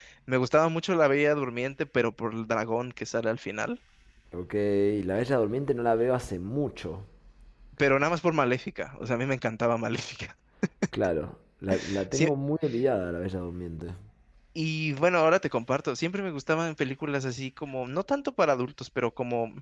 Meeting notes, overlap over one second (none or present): none